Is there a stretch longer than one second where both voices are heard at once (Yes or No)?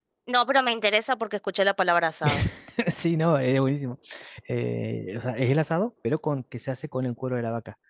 No